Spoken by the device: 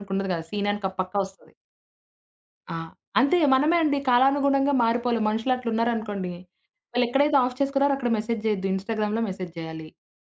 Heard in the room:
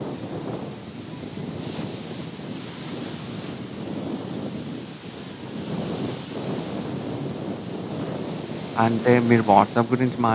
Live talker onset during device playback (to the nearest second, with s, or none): 9 s